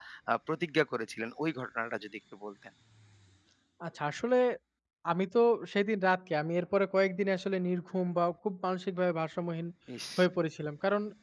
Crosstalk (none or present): none